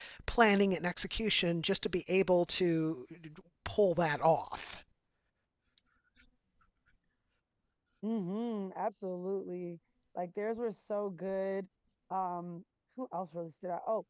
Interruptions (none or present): none